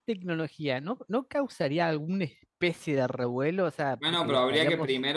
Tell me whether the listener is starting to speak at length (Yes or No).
Yes